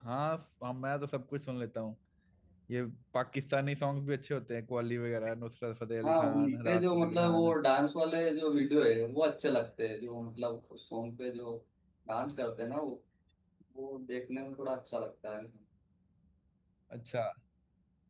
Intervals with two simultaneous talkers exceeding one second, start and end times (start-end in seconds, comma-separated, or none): 6.0-7.5